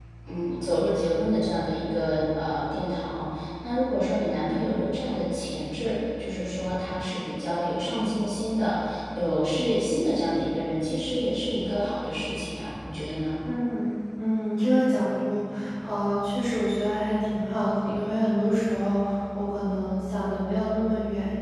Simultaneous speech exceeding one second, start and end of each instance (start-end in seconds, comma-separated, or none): none